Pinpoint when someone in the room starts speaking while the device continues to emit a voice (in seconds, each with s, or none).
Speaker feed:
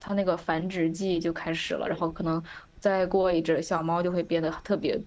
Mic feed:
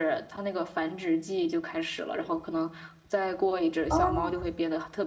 3.9 s